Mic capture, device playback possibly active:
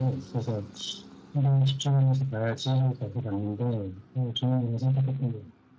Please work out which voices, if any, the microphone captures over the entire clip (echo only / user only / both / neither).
echo only